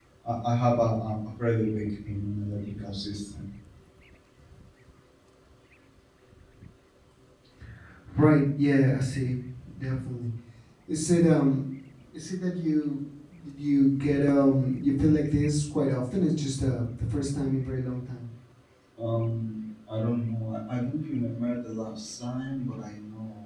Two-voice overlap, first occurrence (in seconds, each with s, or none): none